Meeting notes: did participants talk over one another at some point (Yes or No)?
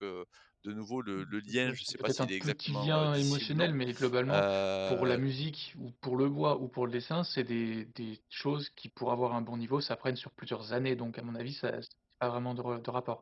Yes